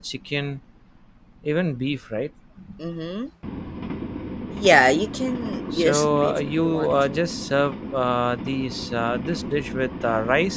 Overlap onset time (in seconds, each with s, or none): 5.7 s